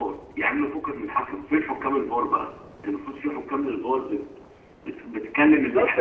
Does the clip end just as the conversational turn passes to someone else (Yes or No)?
Yes